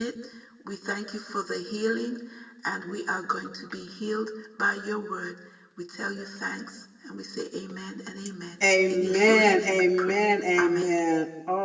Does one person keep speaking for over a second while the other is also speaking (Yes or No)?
Yes